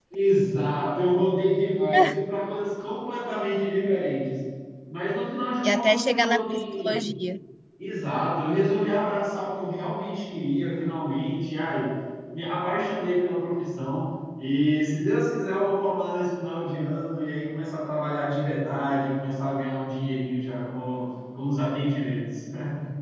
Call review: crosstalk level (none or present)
present